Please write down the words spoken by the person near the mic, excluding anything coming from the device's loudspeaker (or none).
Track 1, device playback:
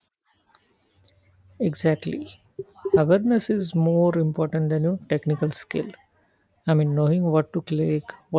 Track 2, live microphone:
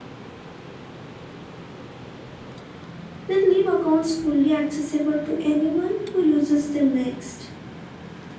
that leave accounts fully accessible to anyone who uses them next.